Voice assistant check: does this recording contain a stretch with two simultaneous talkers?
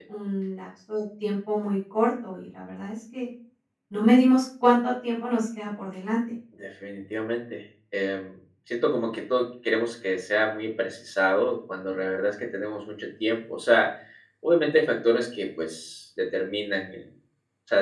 No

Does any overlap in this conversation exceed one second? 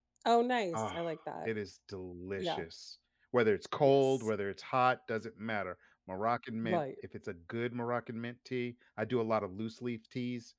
No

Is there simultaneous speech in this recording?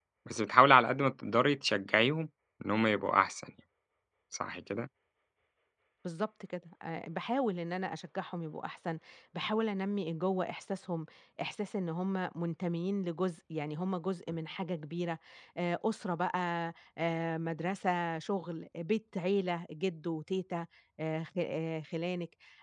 No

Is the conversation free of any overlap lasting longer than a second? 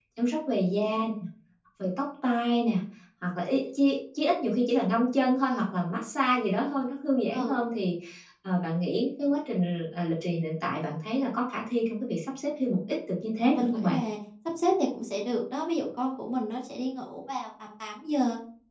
Yes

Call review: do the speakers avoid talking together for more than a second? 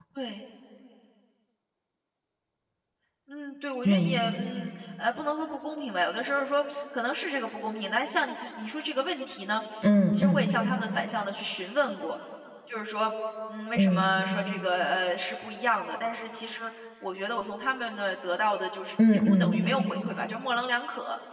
Yes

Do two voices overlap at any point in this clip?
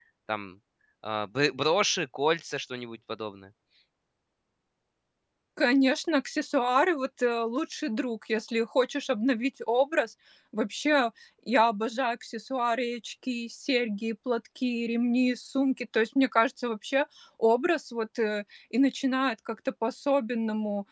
No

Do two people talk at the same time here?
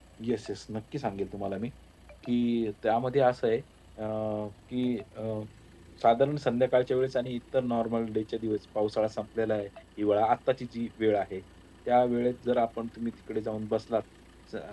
No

